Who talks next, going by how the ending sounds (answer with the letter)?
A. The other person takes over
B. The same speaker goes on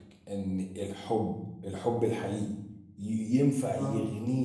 B